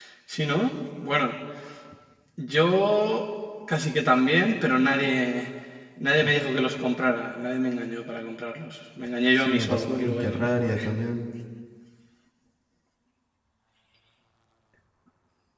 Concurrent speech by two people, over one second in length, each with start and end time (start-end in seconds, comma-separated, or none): 9.4-10.8